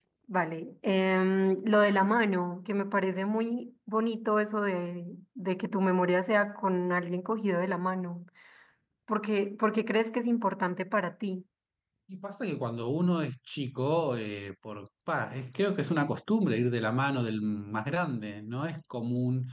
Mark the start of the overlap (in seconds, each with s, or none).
none